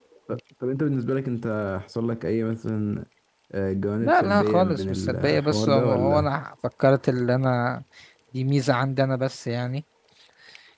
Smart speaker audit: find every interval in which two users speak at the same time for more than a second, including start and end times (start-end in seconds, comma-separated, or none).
4.0-6.3